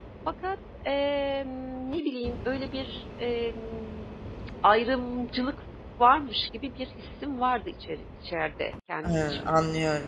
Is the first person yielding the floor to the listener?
Yes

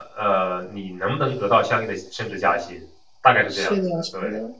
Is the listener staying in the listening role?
No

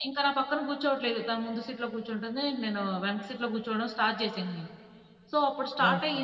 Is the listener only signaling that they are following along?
Yes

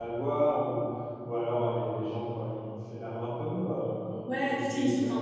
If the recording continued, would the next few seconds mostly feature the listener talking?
Yes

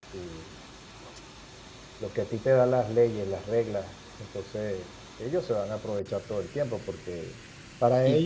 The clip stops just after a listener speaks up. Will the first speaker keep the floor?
Yes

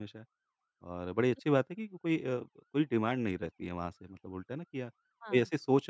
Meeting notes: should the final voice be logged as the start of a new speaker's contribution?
No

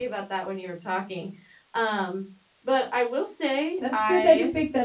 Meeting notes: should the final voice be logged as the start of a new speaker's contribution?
Yes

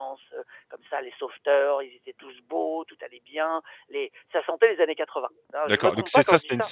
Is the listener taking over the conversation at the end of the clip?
Yes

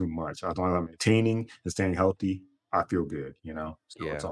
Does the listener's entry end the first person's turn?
Yes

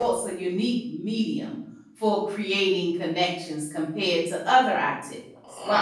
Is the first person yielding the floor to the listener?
No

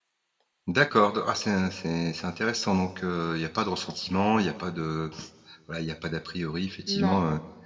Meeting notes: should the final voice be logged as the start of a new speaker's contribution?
No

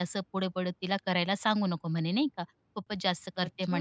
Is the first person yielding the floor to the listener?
No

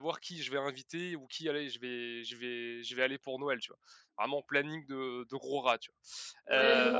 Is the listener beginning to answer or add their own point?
Yes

